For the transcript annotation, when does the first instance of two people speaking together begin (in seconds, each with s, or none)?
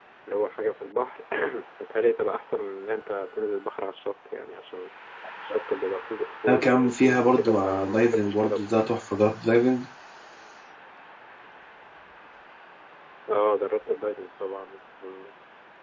6.5 s